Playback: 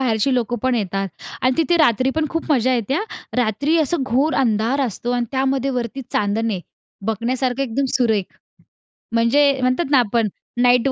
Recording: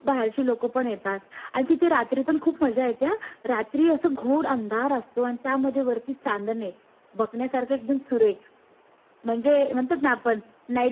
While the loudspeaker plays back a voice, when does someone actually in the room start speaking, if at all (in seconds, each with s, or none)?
none